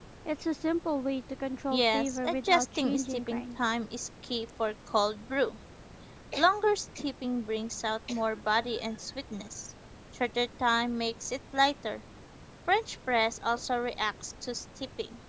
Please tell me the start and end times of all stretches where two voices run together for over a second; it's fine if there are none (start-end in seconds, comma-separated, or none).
1.7-3.6